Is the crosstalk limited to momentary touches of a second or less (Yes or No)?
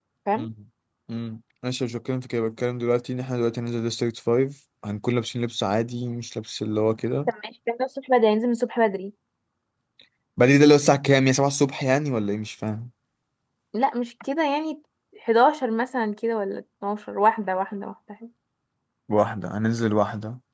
Yes